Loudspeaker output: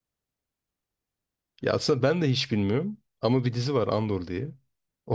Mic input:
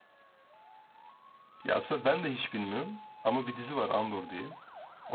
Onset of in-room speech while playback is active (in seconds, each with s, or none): none